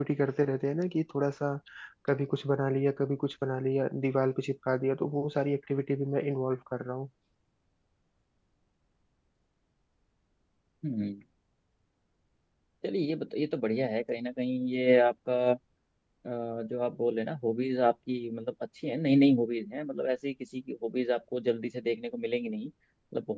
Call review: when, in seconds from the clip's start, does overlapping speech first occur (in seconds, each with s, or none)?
none